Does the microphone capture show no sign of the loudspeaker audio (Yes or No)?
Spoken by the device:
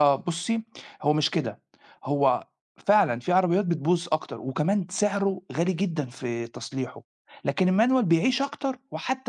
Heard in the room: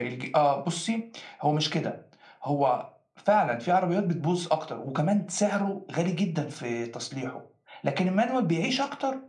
No